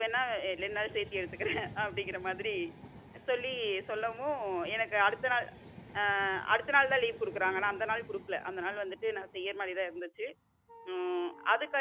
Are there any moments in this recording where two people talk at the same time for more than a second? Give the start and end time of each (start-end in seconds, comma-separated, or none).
none